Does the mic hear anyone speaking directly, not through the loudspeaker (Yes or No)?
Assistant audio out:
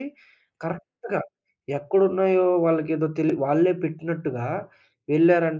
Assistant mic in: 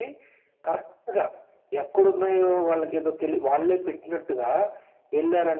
No